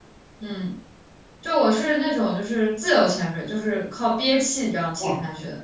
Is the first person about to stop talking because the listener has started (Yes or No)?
Yes